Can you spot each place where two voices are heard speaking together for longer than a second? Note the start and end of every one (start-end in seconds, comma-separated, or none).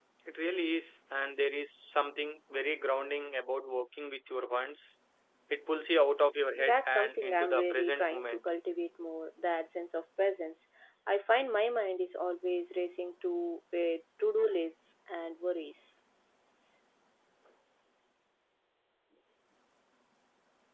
6.5-8.5